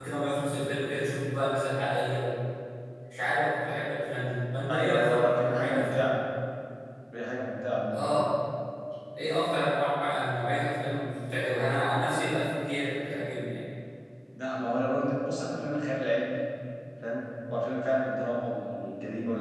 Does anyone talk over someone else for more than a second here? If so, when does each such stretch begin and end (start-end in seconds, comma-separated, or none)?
4.7-6.2